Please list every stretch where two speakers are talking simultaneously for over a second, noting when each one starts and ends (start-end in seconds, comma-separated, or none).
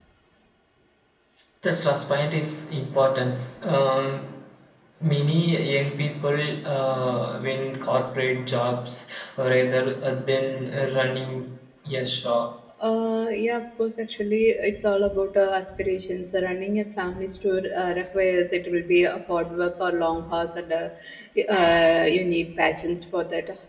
none